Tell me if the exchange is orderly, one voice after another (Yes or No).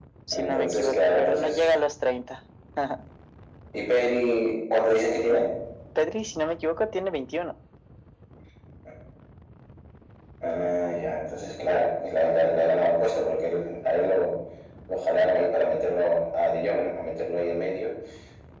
No